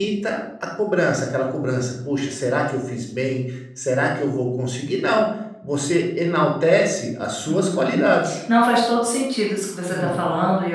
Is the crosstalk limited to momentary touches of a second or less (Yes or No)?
Yes